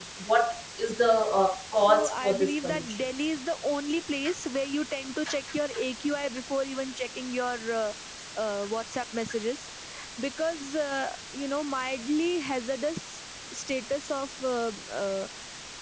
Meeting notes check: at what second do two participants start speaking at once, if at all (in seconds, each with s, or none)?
1.8 s